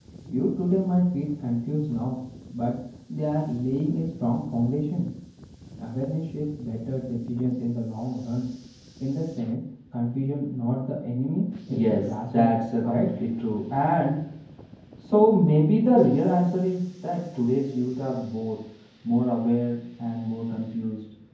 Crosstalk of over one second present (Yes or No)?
Yes